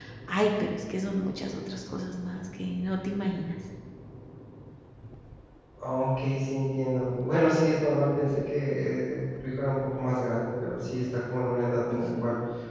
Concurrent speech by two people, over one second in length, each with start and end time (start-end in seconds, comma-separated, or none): none